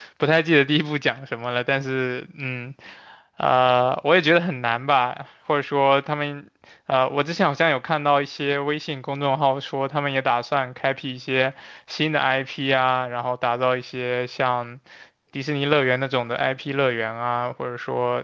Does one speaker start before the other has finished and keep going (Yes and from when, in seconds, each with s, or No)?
No